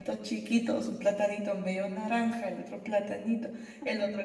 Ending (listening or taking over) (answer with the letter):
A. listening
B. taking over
A